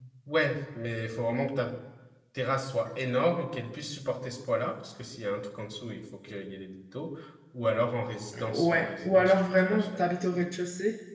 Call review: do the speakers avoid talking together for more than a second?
No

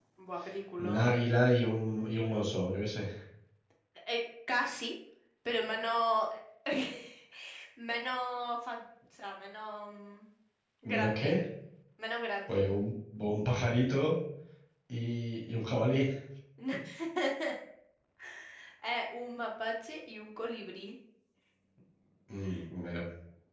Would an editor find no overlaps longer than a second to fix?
Yes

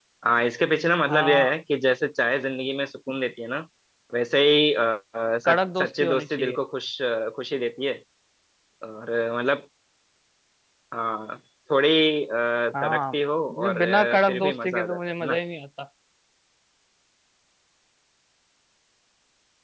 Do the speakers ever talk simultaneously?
Yes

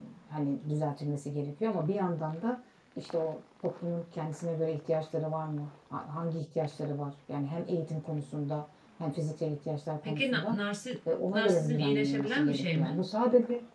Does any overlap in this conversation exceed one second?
Yes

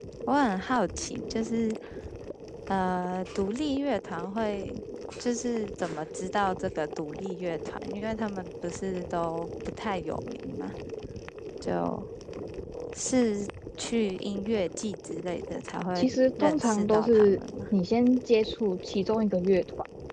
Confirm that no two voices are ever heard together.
No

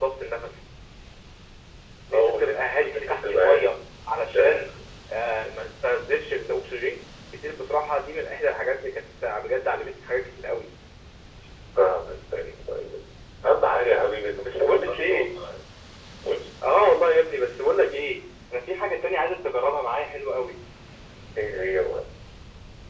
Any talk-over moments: Yes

